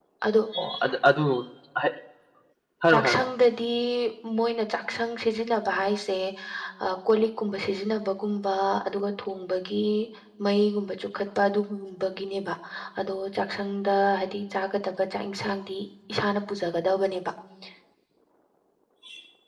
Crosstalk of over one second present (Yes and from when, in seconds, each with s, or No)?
No